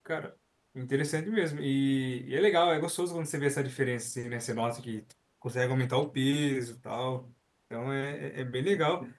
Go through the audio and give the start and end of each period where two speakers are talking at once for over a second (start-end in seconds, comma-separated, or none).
none